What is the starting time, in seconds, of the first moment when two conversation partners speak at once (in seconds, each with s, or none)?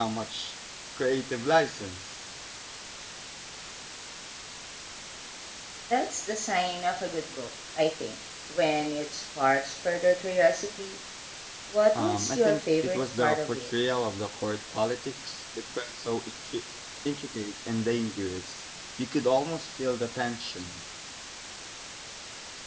12.0 s